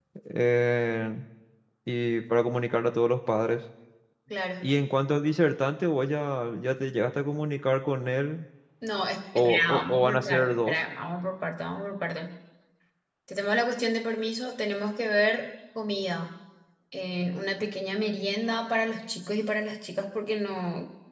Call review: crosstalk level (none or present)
present